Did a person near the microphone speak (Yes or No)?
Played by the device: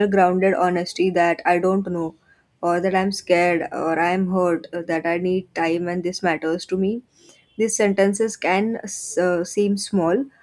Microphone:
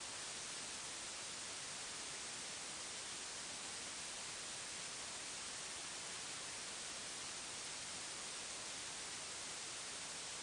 No